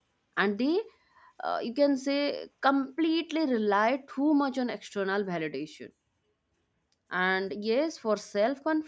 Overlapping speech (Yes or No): No